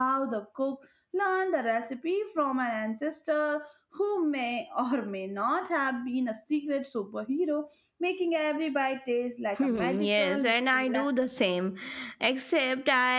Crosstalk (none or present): present